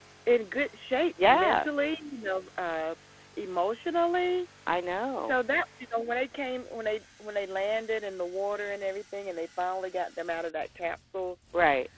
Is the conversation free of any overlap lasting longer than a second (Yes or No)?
Yes